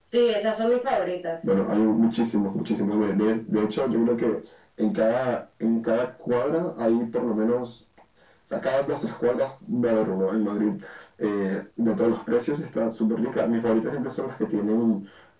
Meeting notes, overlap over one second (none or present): none